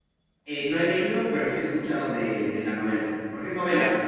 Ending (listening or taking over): taking over